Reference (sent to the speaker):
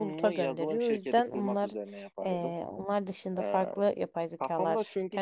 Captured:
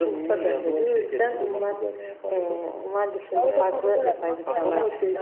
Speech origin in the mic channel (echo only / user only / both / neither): both